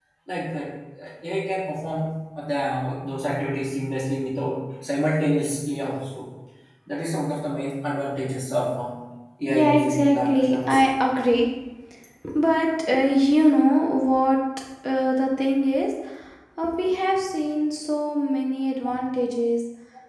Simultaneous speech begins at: 9.4 s

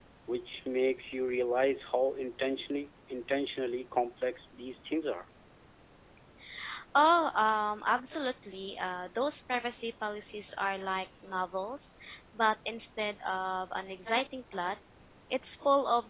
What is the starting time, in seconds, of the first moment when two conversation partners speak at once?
none

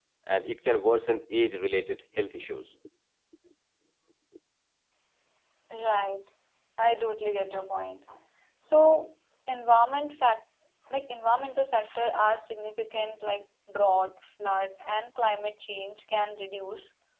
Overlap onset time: none

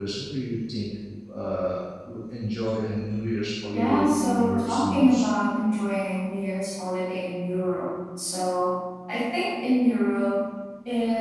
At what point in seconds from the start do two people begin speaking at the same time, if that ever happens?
3.7 s

